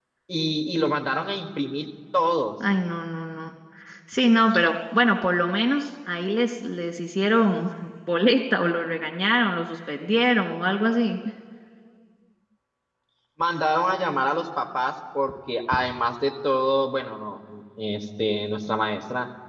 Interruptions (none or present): none